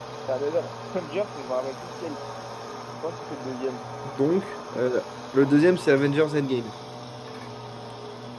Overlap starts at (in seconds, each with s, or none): none